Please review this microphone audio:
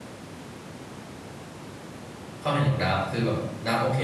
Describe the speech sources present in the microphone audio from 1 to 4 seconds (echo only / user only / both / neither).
user only